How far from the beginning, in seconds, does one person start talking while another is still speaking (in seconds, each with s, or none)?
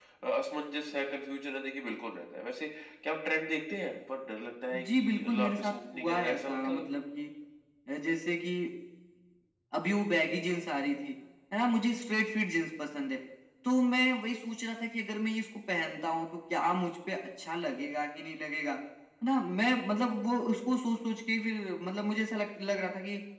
4.7 s